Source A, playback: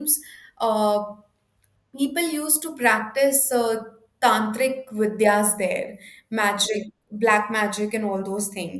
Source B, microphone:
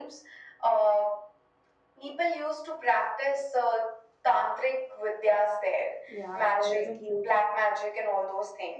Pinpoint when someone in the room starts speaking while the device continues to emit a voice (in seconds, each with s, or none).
6.1 s